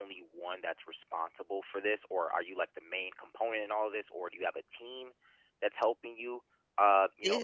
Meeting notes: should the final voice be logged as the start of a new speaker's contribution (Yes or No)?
No